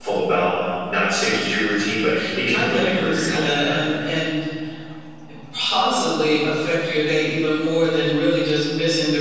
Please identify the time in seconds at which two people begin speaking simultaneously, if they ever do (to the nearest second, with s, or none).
2 s